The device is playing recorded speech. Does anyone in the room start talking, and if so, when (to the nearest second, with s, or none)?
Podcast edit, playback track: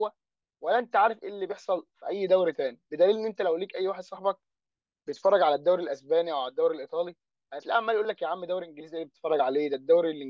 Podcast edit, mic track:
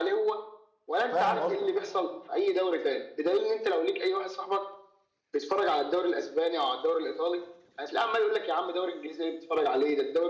1 s